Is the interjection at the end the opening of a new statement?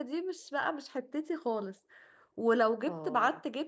No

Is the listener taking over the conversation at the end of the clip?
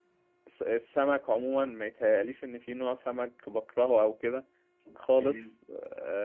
No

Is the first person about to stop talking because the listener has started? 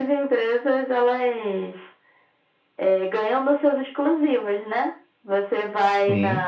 No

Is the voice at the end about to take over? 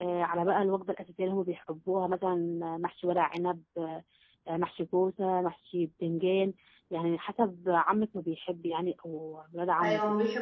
Yes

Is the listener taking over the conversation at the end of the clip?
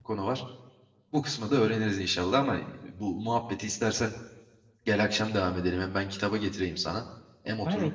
Yes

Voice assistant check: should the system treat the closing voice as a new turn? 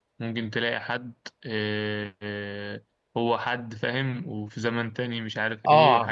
Yes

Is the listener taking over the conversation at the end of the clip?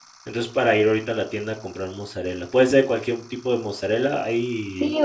Yes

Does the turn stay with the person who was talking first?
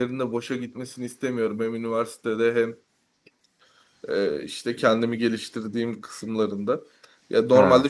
Yes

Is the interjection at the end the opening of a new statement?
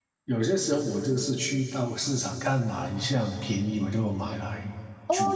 Yes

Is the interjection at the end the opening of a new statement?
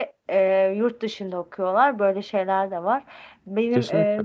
No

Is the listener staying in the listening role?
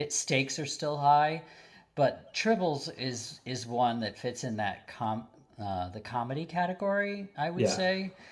Yes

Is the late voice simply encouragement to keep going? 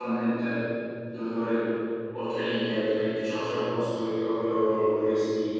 Yes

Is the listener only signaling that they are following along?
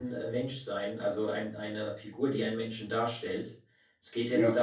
Yes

